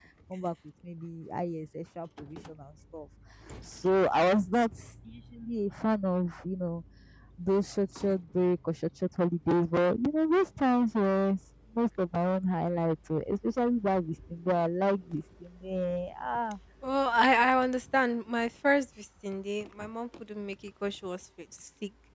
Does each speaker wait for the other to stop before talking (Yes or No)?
Yes